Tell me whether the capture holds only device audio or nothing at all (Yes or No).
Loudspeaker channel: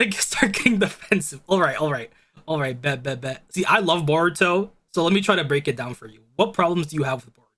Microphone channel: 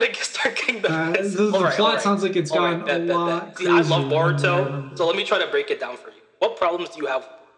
No